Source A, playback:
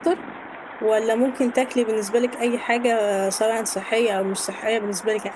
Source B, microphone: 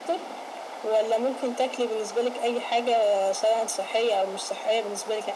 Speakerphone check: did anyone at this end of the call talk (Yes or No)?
No